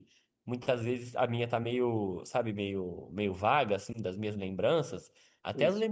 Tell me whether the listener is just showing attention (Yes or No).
Yes